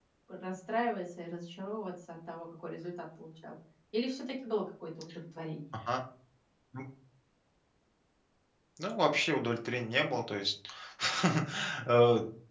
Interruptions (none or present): none